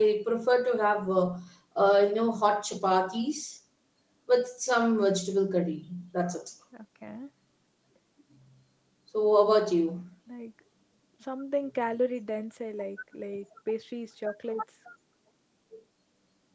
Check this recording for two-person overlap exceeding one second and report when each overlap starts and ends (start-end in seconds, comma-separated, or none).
none